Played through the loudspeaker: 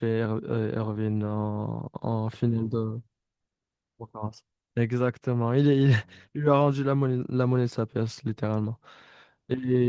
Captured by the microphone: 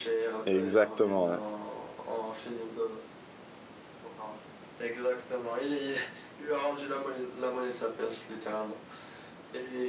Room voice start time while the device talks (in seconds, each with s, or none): 0.5 s